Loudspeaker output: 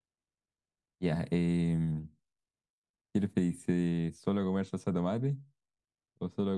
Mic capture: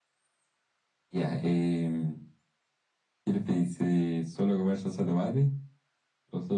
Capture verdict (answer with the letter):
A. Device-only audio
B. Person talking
A